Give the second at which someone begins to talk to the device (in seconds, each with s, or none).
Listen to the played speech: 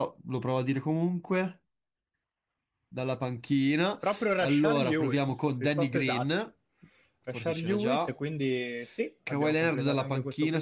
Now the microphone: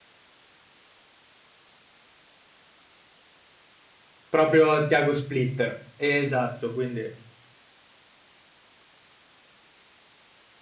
4.3 s